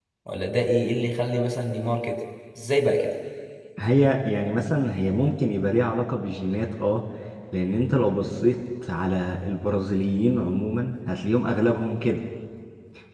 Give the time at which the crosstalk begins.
none

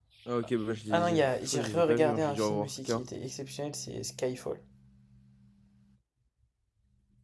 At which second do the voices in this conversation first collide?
0.9 s

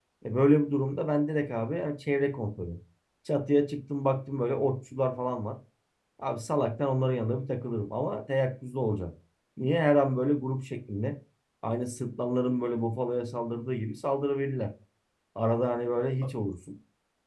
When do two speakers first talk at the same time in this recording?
none

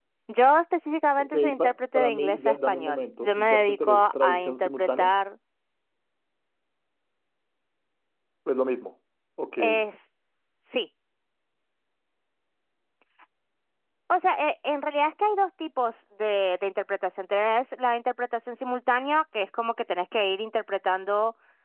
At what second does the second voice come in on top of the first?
1.2 s

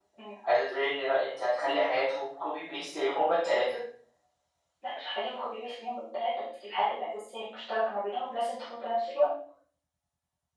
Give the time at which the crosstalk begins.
none

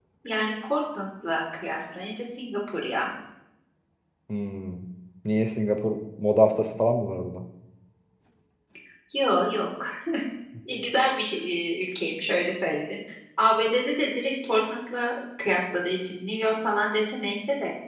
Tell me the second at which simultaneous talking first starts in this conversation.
none

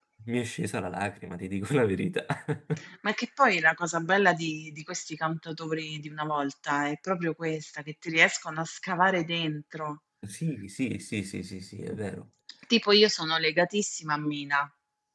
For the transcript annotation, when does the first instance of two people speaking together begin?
none

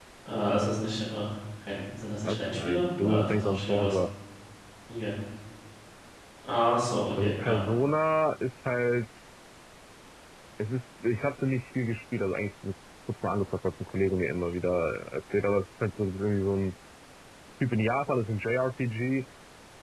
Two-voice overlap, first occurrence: 2.2 s

